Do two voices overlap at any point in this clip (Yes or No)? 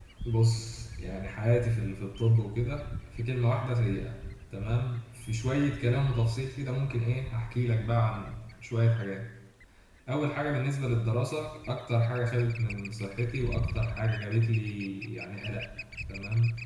No